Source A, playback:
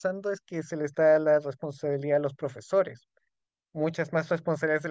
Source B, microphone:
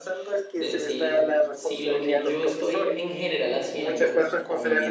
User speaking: Yes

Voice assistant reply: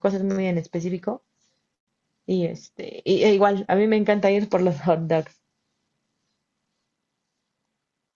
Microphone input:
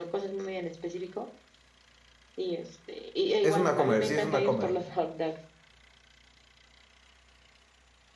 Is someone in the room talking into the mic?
Yes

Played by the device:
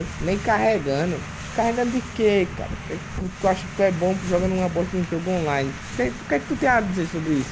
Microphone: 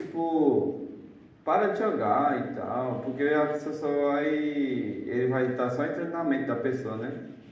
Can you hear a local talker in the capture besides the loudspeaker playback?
Yes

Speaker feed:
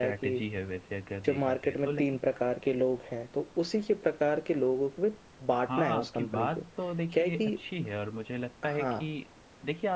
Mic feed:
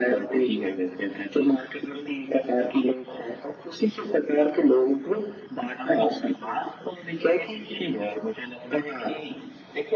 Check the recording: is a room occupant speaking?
No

